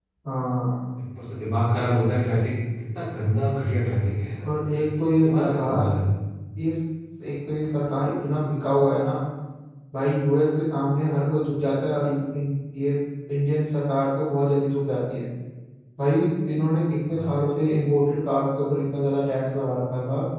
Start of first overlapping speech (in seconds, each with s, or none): 4.5 s